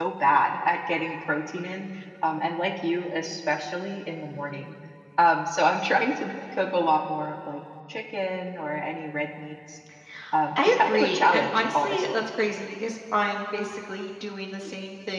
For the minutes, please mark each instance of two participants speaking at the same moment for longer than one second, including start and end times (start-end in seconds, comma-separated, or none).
10.6-12.2